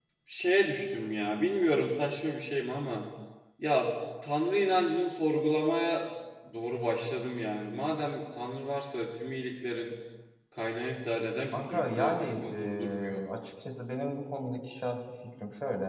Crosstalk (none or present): present